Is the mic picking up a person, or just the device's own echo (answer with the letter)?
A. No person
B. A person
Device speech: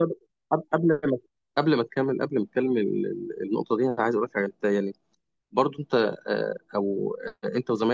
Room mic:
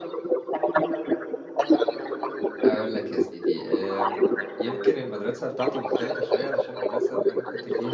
B